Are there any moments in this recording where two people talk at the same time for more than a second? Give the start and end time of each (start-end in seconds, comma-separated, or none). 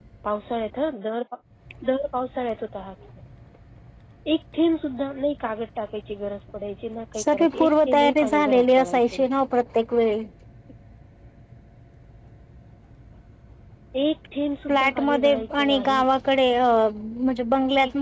7.3-9.0, 14.7-16.1